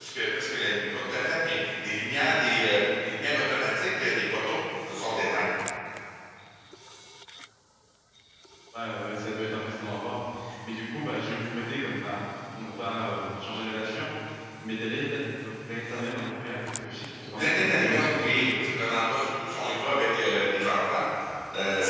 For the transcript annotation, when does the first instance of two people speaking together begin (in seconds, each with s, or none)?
17.2 s